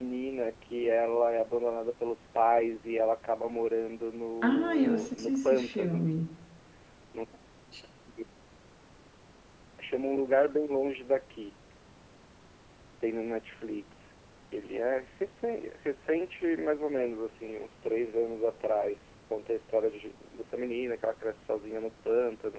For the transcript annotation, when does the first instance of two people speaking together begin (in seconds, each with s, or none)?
4.4 s